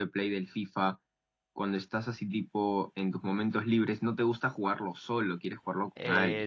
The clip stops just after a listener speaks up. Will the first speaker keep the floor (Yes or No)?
No